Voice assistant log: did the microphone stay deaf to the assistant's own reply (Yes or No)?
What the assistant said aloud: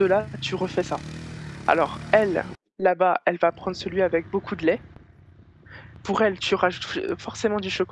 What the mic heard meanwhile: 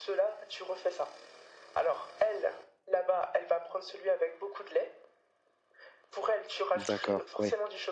No